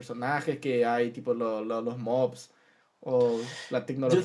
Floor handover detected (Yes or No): No